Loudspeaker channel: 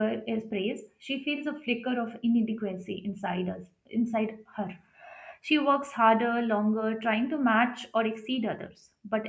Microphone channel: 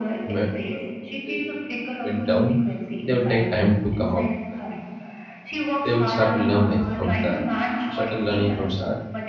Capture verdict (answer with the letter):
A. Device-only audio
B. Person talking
B